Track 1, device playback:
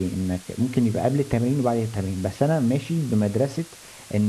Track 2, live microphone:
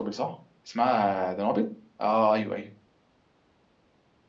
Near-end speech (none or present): present